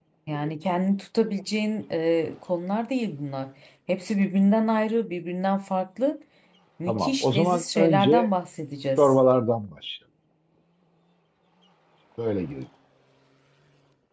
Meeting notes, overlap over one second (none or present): present